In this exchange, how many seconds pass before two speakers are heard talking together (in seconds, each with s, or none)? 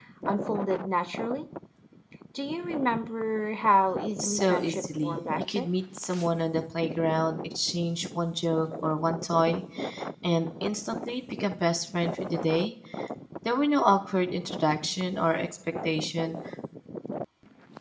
4.2 s